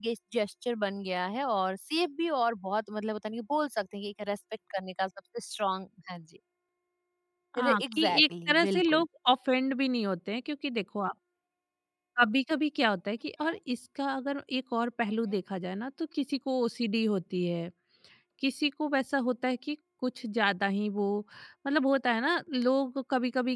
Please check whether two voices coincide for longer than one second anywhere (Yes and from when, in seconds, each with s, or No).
Yes, from 7.6 s